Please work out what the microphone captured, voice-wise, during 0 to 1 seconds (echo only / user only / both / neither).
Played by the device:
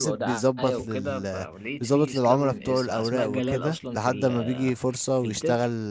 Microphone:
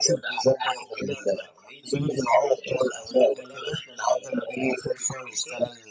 echo only